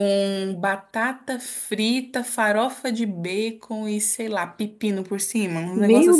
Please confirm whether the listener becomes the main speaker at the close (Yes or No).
Yes